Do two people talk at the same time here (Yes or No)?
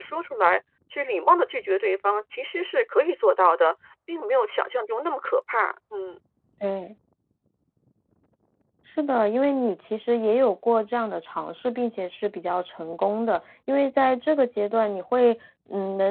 No